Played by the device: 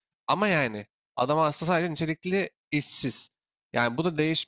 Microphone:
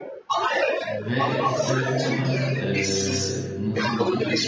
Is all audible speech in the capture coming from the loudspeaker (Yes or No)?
No